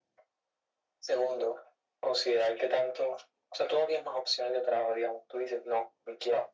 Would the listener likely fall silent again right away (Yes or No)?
Yes